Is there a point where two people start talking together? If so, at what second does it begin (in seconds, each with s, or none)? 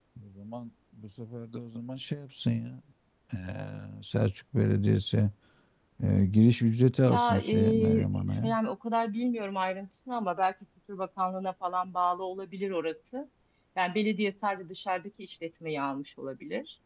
7.1 s